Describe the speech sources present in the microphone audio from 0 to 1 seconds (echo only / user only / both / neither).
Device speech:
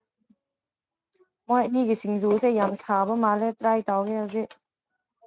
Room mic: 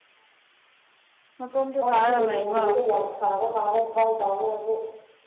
neither